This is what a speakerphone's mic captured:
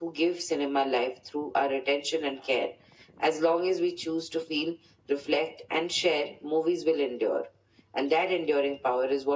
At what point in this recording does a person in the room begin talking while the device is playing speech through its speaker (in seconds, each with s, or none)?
none